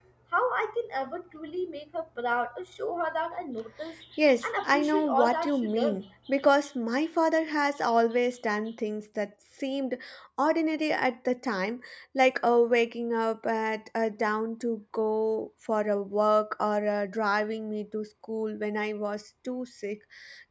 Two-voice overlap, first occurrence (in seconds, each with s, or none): 4.4 s